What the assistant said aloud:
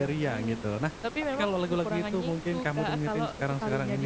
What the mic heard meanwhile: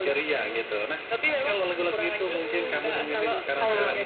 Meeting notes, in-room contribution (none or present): present